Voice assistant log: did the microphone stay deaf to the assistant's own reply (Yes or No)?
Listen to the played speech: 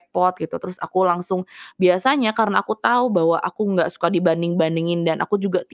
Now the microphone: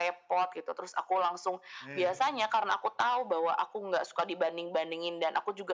No